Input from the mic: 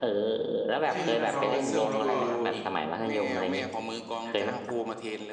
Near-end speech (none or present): present